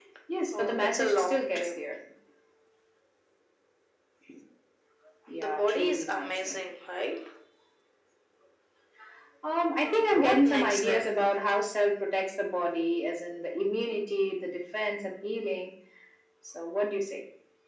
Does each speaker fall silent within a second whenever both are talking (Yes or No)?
No